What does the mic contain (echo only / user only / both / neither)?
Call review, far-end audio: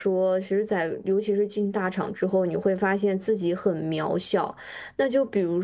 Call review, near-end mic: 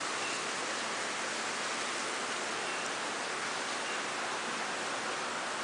neither